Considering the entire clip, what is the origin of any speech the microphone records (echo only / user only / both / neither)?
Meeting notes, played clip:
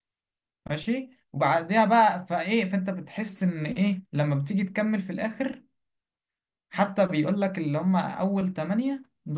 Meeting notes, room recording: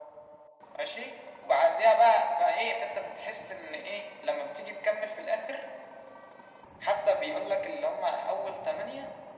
echo only